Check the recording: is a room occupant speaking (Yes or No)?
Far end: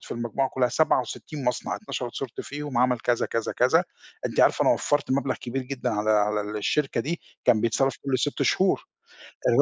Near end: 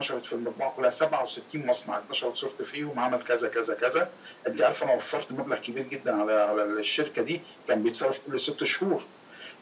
No